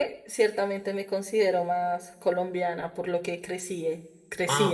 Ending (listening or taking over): taking over